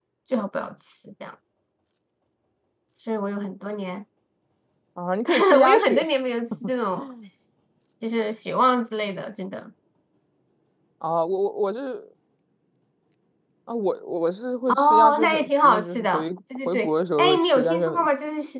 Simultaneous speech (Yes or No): Yes